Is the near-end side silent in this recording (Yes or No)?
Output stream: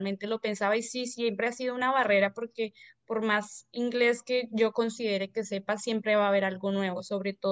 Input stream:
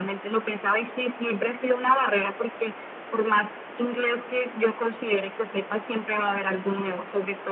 Yes